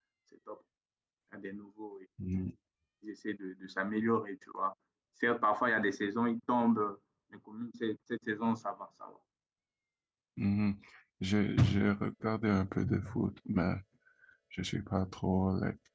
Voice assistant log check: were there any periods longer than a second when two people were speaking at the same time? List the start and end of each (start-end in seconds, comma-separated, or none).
none